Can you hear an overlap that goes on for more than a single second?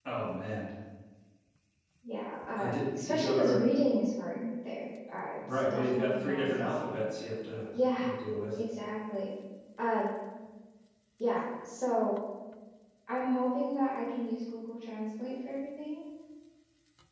Yes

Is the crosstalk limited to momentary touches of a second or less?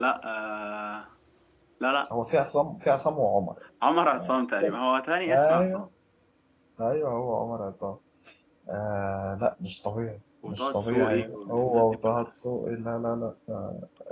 No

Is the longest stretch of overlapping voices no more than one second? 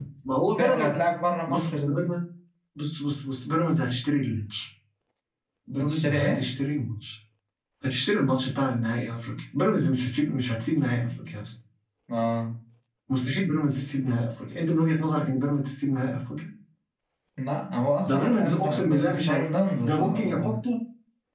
No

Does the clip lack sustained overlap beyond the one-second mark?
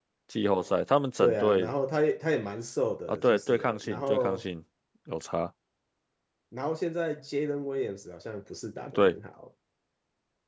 No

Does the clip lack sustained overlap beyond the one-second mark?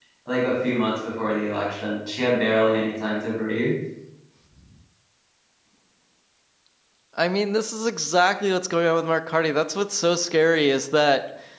Yes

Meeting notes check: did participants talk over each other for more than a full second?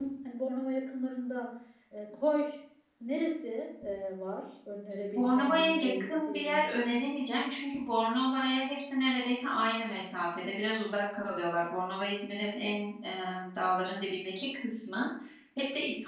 Yes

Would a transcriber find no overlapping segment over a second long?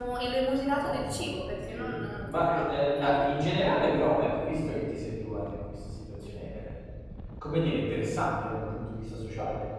No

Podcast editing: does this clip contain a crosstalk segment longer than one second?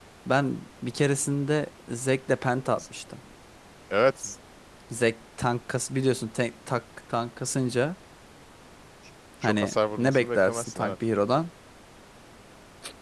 Yes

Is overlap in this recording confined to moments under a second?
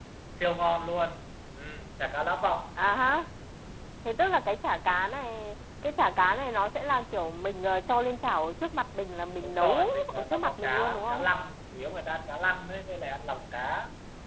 No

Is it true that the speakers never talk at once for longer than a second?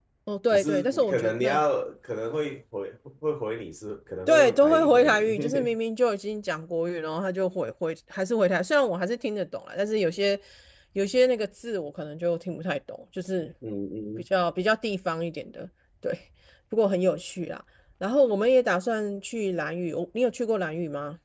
No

